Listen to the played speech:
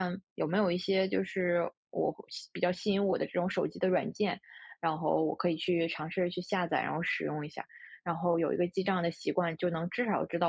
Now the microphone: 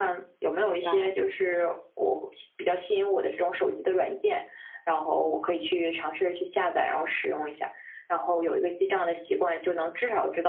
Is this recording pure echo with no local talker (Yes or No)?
No